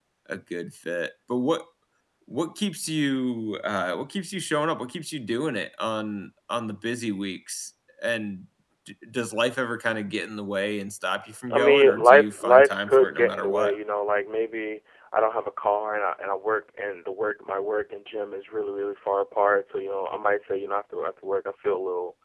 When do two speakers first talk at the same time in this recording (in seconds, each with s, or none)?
11.5 s